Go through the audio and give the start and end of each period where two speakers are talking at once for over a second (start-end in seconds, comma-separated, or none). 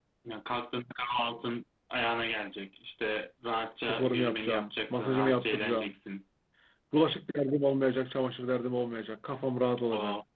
3.8-5.9